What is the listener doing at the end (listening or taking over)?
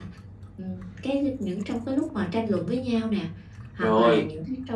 listening